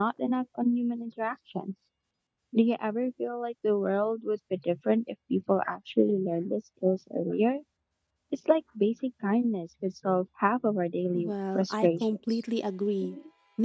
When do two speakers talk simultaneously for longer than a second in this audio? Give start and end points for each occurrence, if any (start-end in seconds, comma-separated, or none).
11.1-12.4